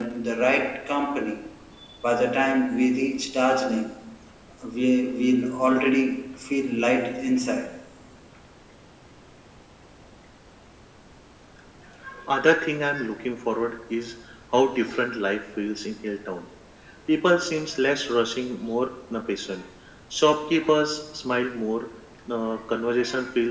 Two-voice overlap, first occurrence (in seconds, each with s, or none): none